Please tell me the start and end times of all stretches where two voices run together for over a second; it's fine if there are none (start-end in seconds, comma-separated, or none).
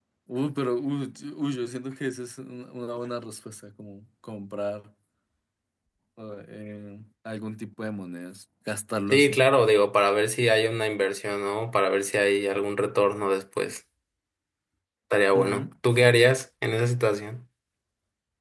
none